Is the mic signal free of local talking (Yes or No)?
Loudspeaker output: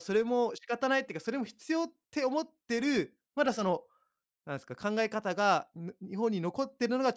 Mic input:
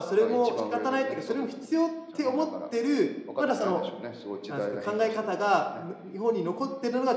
No